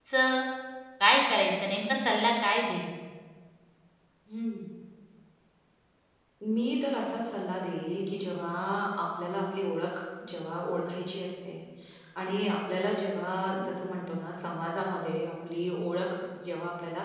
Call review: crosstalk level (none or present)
none